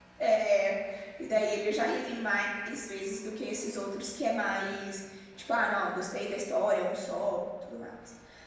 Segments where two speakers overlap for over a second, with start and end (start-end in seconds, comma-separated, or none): none